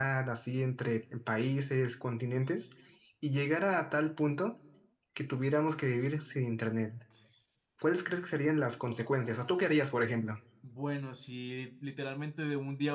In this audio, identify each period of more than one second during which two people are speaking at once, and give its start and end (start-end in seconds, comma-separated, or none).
none